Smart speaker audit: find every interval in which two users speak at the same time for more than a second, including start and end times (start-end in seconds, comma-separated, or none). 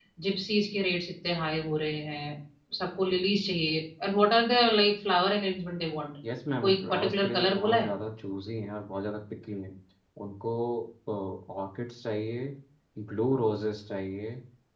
6.6-7.9